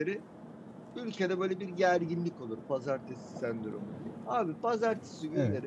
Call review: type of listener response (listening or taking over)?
listening